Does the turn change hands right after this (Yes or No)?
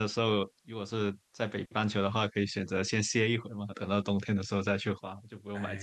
Yes